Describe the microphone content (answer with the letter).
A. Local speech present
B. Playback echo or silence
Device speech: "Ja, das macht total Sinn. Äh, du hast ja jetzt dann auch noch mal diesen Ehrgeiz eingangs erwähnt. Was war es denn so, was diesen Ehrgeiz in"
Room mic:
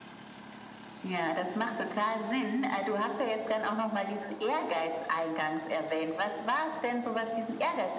B